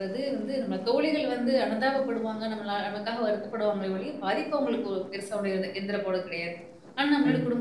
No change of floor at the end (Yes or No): Yes